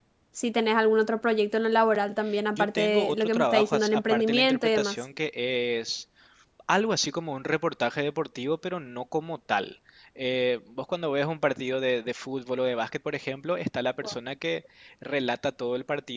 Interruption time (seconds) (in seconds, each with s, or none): 2.6 s